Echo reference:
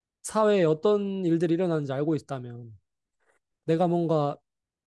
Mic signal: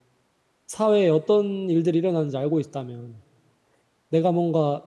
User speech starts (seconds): none

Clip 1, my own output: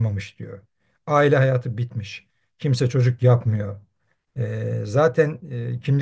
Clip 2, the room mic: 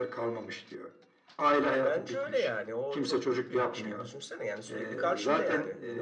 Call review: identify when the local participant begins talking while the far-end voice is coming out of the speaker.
1.6 s

